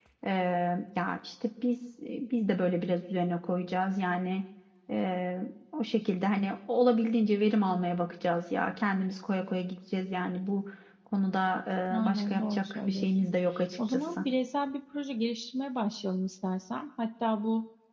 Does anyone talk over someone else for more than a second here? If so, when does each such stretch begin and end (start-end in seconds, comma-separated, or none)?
12.0-13.3